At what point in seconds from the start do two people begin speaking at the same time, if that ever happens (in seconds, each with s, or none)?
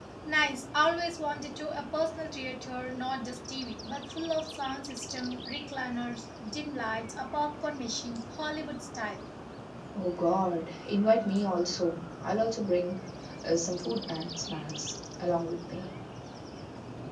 none